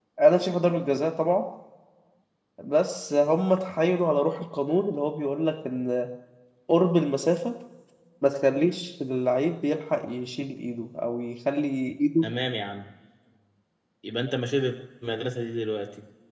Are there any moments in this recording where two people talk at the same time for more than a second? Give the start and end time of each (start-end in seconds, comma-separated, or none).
none